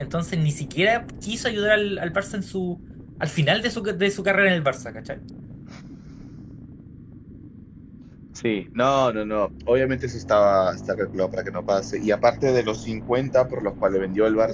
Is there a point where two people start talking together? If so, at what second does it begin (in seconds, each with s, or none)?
none